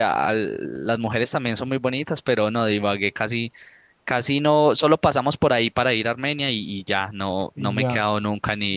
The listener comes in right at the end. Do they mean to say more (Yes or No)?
No